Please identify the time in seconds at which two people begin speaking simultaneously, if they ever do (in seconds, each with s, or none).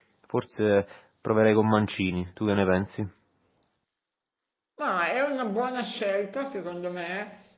none